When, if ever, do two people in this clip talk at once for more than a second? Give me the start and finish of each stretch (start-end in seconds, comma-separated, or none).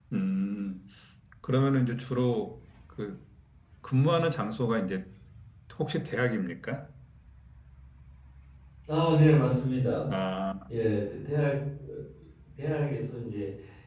none